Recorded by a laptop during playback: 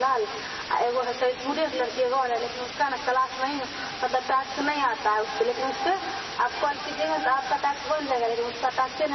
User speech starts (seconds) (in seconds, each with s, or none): none